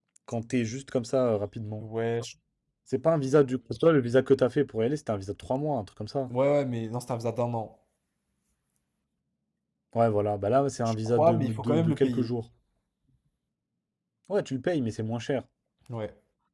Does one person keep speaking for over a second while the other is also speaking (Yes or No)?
Yes